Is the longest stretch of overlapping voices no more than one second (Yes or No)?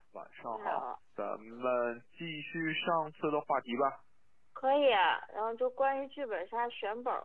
Yes